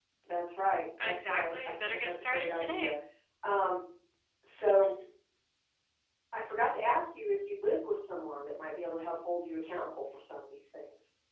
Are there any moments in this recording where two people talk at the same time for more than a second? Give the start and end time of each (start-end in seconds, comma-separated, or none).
1.0-2.9